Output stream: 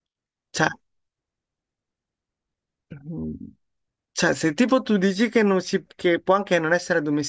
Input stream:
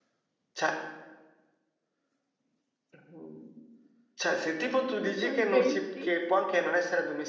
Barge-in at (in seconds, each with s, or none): 5.0 s